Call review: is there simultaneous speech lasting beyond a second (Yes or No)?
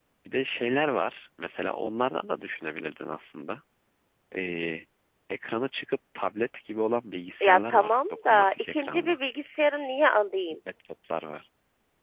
Yes